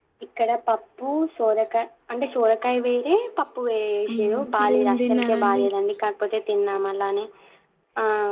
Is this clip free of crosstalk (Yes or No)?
No